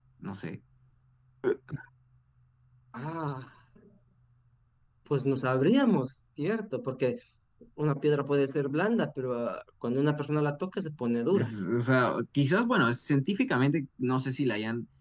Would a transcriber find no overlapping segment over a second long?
Yes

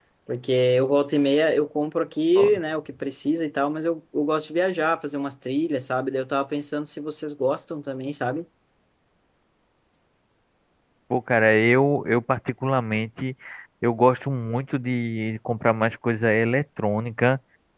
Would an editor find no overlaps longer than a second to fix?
Yes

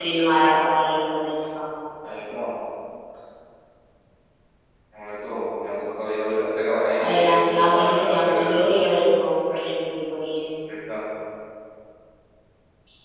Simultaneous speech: Yes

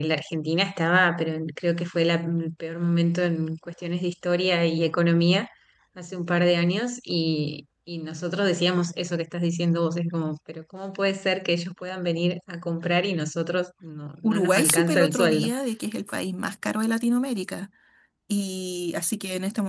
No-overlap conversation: No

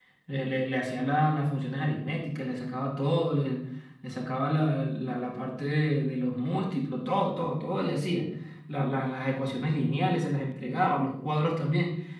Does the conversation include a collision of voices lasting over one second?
No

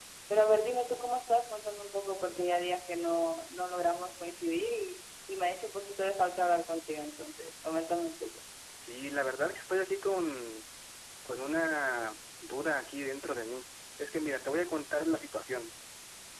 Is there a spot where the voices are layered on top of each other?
No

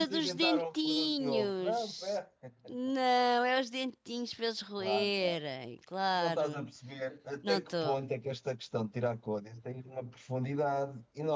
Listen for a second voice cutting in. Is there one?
Yes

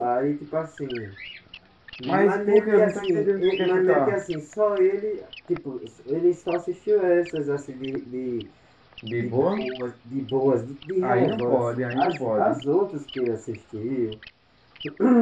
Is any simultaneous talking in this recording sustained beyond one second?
Yes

